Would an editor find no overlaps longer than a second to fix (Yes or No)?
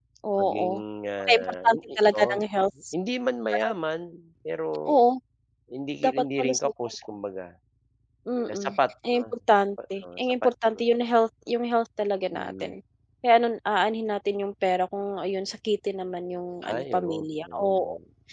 No